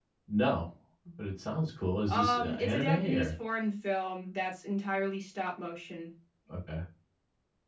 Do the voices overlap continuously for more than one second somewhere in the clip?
Yes, from 2.1 s

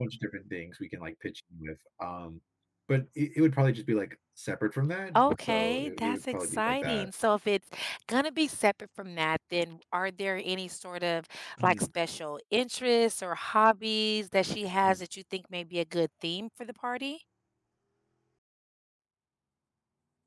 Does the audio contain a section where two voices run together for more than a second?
Yes, from 5.2 s

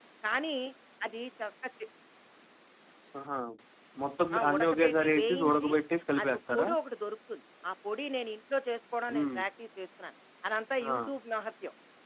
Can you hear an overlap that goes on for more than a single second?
Yes, from 4.4 s

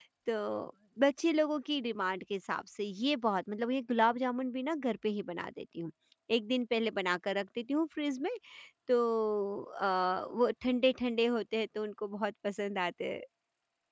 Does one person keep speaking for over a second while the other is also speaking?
No

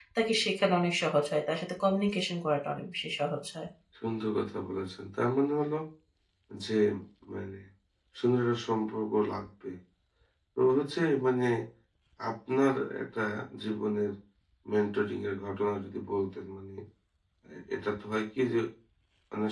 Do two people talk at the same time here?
No

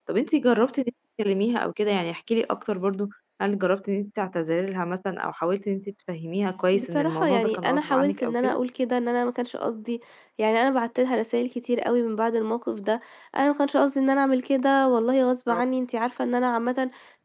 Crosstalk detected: Yes, from 6.7 s

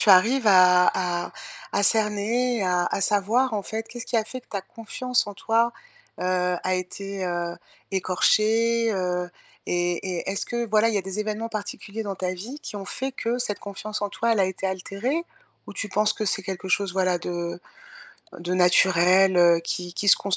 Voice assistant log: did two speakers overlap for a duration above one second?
No

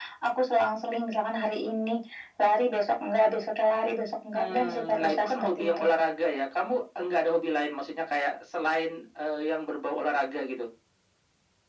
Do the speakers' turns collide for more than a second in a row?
Yes, from 4.3 s

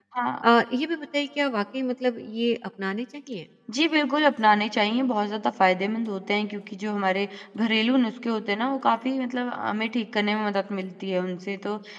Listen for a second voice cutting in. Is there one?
No

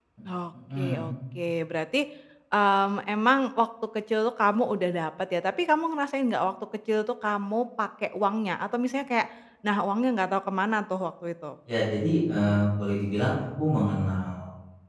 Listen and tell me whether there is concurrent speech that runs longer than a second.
No

